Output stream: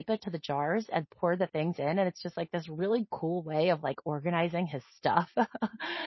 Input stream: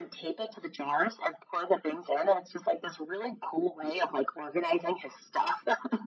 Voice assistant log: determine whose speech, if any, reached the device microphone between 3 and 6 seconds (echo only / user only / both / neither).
echo only